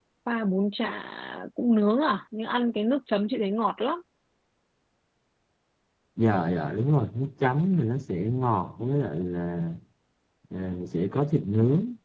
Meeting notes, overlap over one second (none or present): none